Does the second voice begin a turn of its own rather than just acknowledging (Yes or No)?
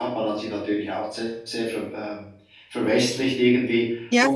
No